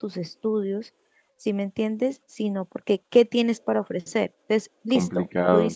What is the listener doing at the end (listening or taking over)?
taking over